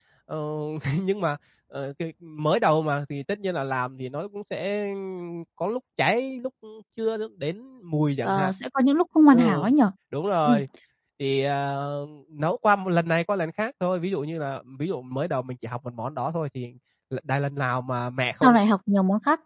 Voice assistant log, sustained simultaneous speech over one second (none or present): none